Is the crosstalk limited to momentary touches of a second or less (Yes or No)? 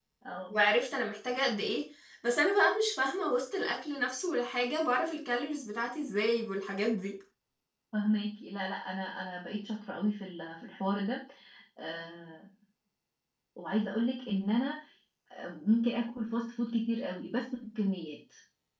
Yes